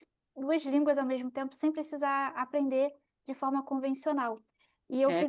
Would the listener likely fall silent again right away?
Yes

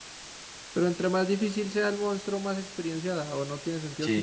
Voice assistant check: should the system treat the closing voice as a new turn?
Yes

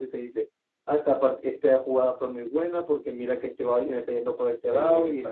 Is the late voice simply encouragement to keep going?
Yes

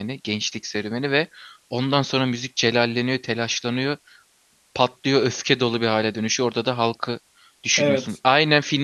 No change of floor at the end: Yes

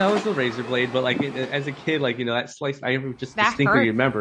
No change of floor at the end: Yes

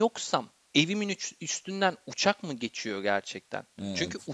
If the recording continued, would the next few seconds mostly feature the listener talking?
No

